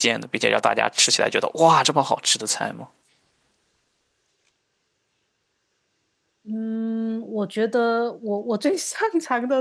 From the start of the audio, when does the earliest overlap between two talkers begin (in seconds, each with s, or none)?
none